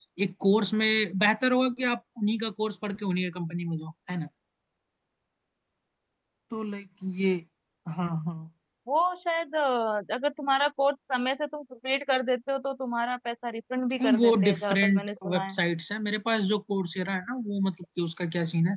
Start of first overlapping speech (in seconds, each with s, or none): 14.0 s